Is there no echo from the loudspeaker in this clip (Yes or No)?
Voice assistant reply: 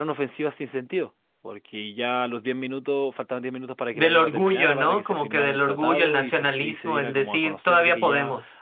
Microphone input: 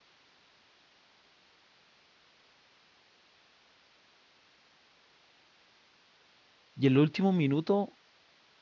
Yes